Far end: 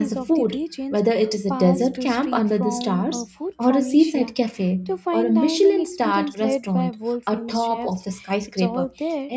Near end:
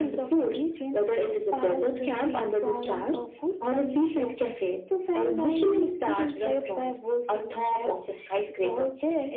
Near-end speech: none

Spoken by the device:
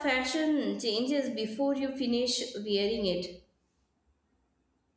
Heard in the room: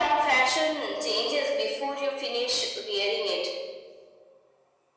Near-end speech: none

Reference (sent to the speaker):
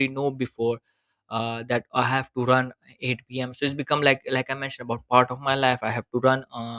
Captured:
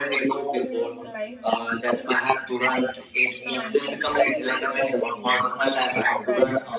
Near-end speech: present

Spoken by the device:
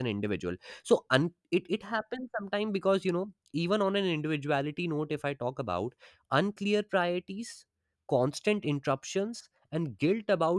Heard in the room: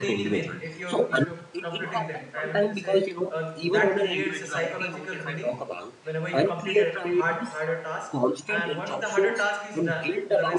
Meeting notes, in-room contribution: present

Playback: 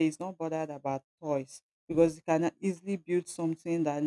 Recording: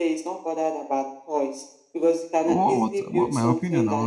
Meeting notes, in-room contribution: present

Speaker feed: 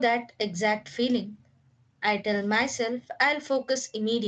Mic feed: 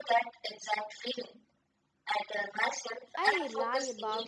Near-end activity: present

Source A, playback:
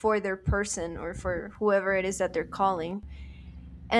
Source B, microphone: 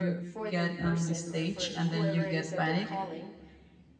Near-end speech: present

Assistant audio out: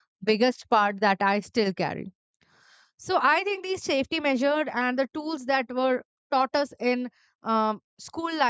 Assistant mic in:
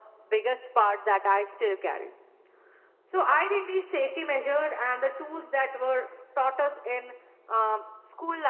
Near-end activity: none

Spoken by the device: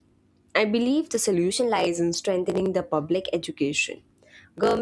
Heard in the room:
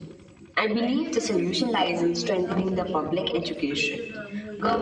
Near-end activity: present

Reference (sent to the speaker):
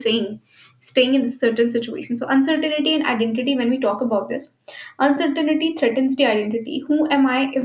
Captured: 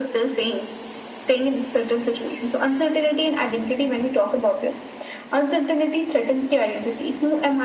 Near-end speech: none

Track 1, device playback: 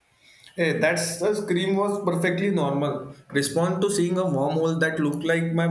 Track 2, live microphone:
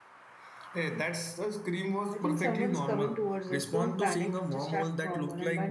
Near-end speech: present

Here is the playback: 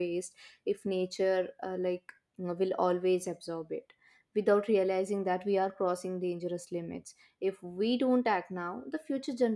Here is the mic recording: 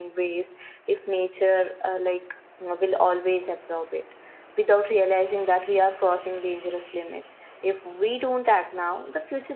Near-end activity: none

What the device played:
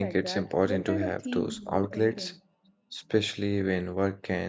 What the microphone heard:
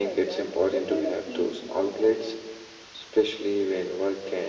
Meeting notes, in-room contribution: none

